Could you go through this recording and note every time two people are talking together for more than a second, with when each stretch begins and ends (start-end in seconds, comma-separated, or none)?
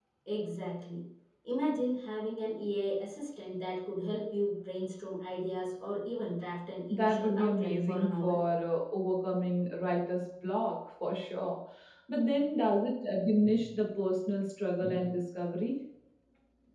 6.9-8.4